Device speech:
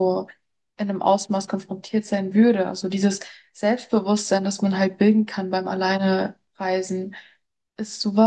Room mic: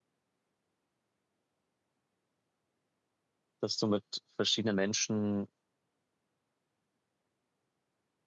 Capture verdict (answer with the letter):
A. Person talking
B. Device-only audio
A